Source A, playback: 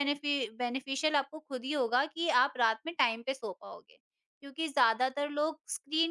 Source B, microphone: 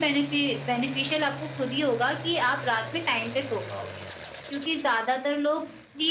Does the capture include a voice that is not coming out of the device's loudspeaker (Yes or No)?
No